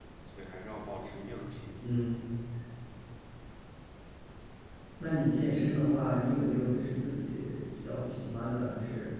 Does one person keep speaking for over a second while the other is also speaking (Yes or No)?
No